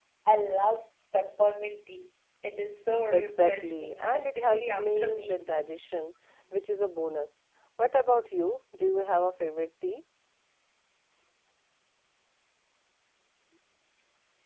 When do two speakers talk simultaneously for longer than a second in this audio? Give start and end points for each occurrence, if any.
3.1-5.4

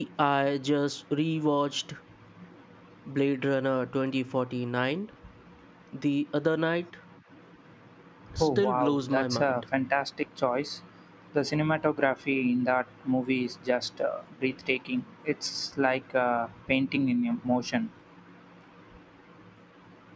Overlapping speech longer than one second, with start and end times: 8.4-9.6

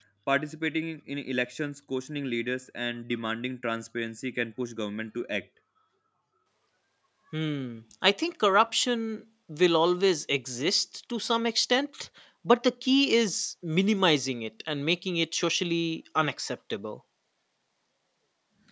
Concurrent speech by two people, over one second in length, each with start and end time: none

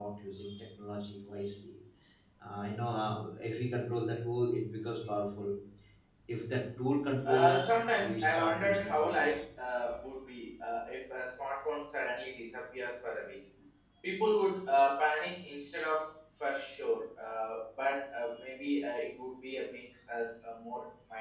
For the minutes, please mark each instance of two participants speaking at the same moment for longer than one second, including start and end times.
7.3-9.4

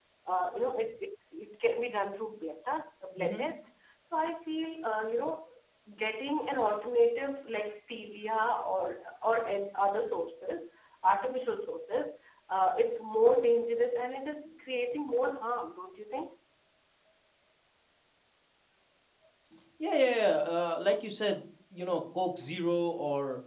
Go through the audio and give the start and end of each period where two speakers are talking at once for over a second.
none

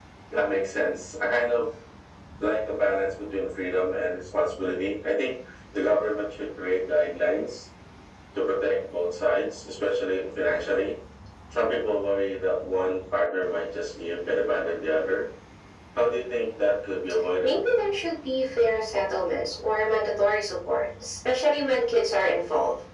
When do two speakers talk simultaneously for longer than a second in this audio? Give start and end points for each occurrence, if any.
none

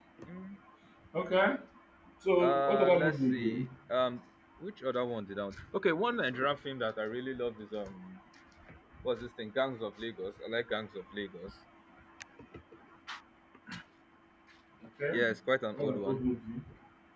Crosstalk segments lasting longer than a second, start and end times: 2.4-3.7

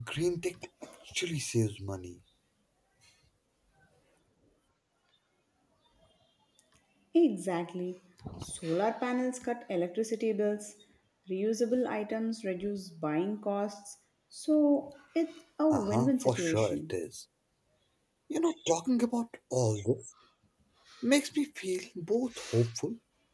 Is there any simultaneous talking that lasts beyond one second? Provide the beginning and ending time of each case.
15.7-16.9

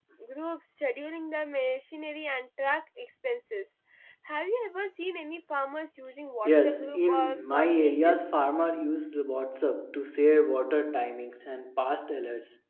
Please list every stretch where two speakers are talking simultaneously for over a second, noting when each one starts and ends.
6.4-8.4

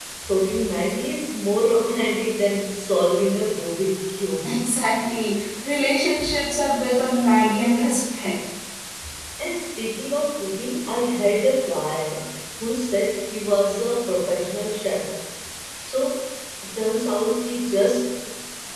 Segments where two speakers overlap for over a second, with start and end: none

